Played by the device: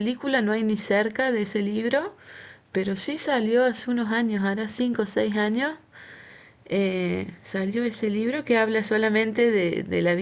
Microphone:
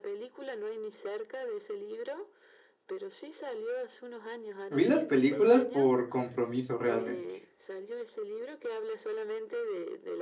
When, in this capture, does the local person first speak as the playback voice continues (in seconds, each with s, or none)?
4.7 s